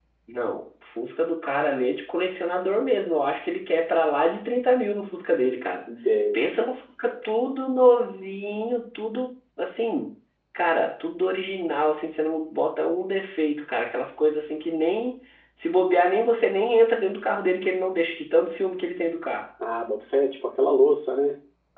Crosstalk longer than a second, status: none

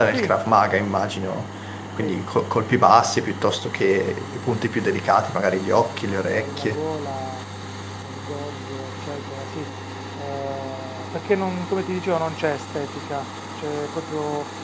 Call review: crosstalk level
present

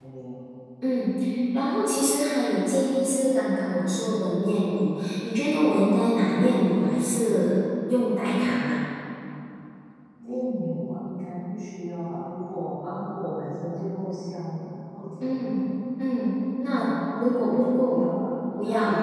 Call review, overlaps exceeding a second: present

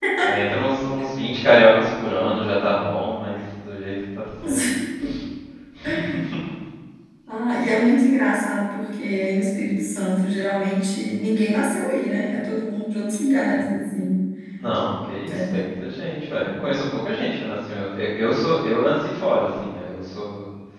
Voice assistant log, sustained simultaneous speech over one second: none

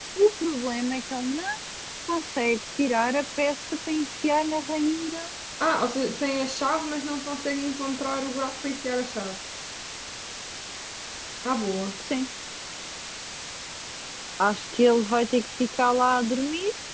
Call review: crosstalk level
none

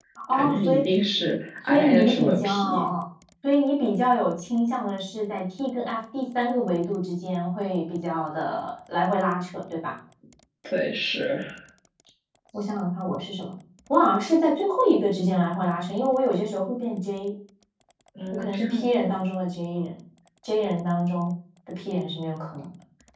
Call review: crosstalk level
present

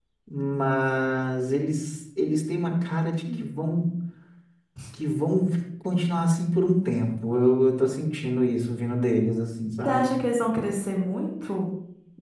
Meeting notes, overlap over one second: none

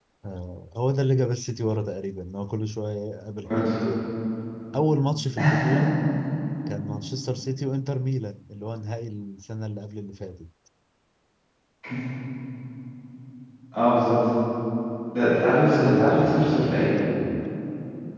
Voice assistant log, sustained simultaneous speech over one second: present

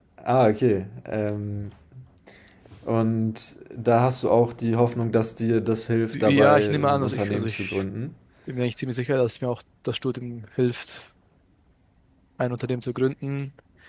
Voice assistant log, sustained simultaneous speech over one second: present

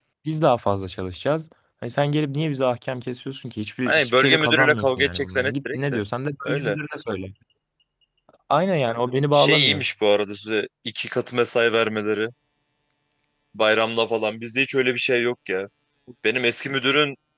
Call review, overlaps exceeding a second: present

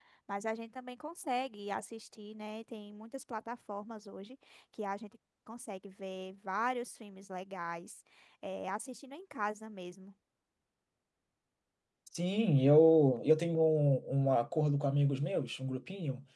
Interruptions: none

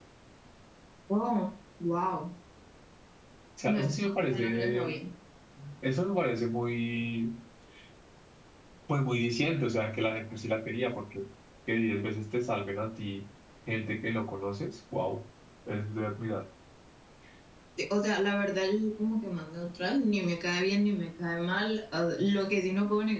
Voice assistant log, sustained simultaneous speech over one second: present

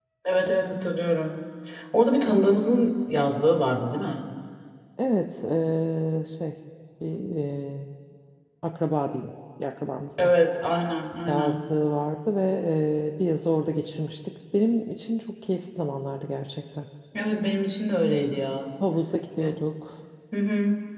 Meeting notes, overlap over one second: none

